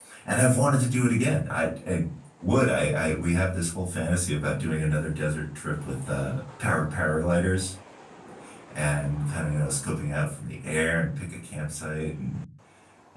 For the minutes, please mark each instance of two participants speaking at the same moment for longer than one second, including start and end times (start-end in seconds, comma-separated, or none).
none